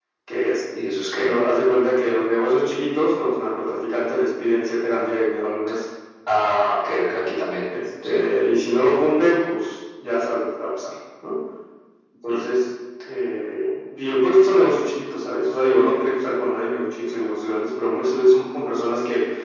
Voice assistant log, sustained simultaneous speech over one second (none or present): none